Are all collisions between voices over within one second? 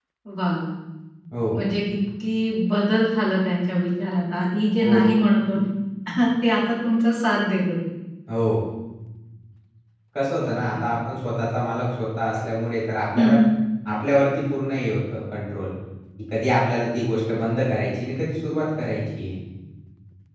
Yes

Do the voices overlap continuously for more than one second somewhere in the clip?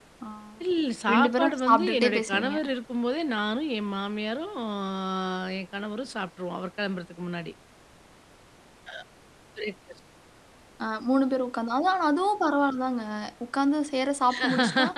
Yes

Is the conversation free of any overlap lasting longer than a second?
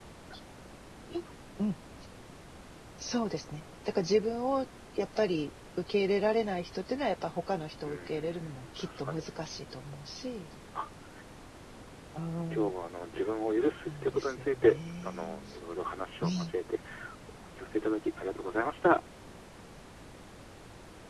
No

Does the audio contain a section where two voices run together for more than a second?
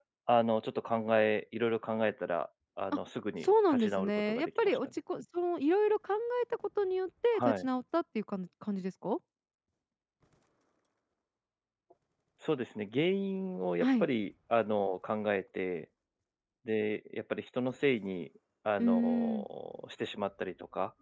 Yes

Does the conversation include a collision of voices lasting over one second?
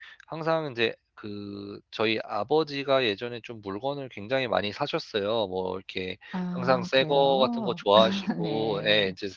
Yes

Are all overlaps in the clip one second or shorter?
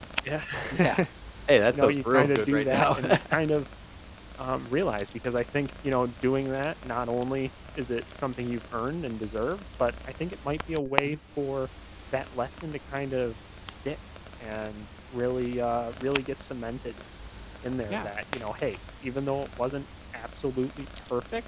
No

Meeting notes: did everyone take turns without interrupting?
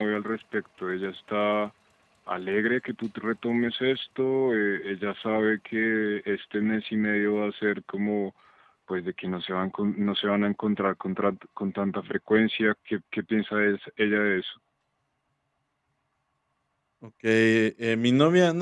Yes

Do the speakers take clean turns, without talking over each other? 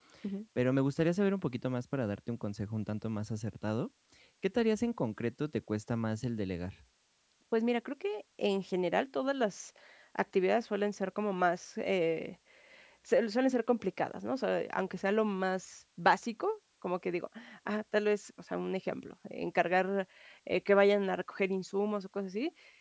Yes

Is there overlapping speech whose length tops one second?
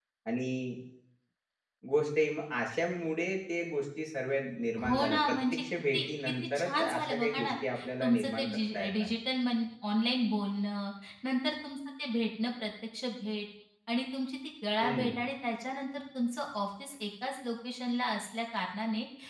Yes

